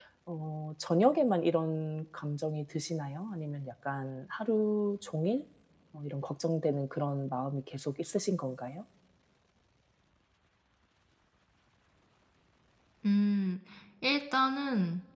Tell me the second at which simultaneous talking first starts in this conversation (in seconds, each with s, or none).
none